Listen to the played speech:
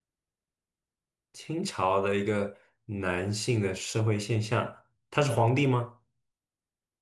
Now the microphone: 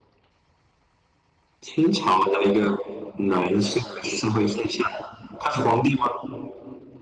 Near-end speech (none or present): none